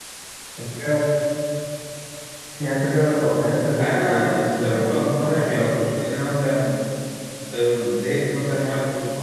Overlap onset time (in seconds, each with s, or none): 3.8 s